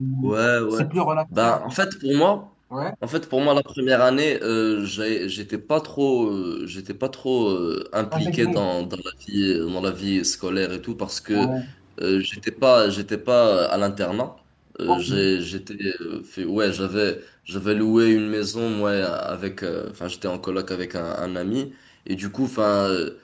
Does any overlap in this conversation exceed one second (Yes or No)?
No